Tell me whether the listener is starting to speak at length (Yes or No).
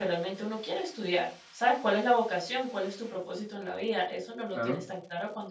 No